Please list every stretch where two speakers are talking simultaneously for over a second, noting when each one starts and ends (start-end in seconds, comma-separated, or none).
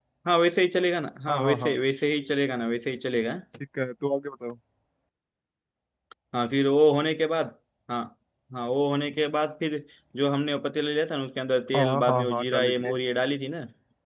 11.7-12.9